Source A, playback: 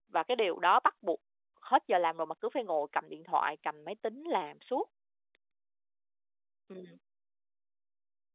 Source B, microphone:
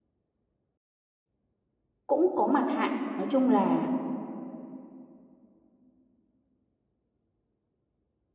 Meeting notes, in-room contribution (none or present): present